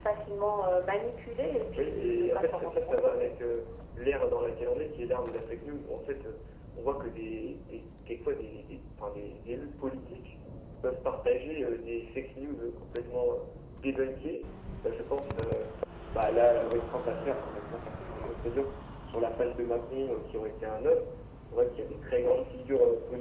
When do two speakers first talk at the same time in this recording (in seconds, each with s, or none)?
1.8 s